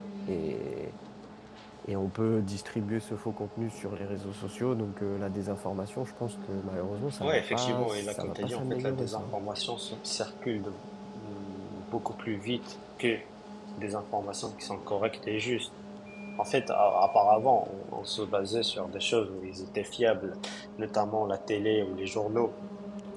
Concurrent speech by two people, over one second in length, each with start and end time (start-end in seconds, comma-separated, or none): 7.2-9.2